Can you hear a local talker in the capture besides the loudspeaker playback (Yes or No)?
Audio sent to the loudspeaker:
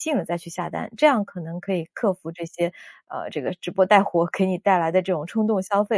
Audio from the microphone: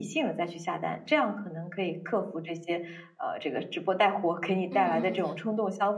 Yes